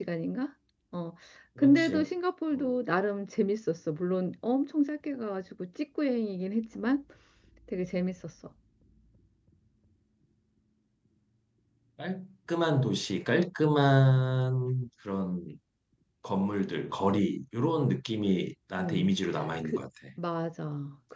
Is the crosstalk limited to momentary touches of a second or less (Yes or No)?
Yes